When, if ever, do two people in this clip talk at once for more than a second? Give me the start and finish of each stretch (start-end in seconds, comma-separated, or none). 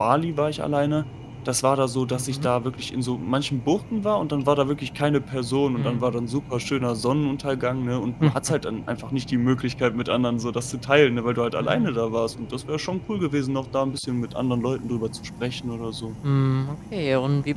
none